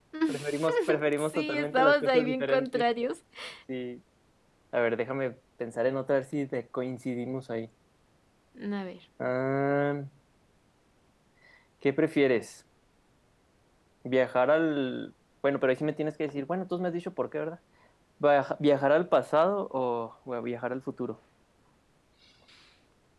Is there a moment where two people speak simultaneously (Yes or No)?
Yes